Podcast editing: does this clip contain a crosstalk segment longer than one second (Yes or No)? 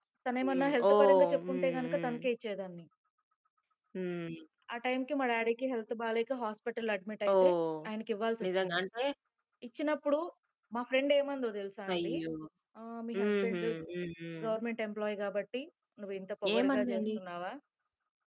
Yes